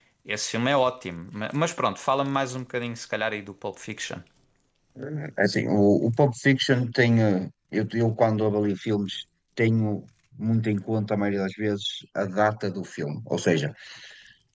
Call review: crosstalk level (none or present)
none